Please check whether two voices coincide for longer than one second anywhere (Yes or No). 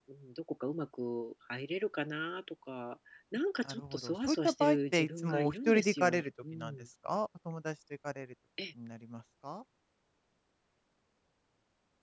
Yes